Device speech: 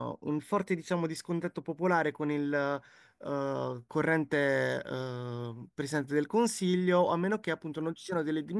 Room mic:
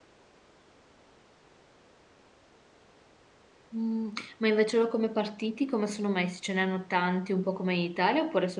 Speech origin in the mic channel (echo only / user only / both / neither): user only